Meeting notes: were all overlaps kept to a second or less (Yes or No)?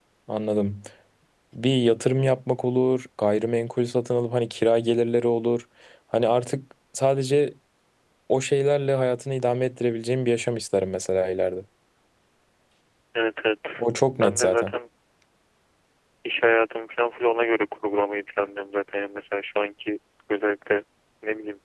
Yes